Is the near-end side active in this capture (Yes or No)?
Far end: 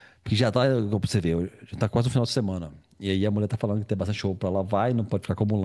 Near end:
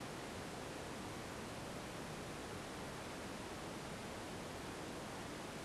No